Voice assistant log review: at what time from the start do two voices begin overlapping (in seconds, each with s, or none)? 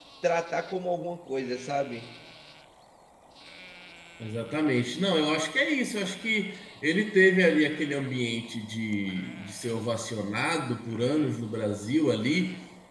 none